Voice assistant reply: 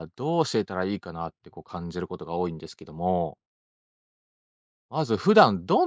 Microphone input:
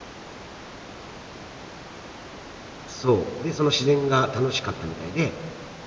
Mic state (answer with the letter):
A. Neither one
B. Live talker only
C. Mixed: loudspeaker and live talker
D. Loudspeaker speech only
B